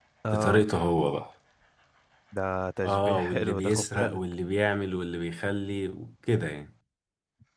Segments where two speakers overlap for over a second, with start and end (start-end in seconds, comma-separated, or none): 2.9-4.2